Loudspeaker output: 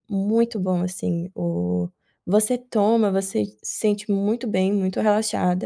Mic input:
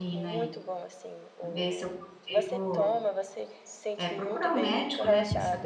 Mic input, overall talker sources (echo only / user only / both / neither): both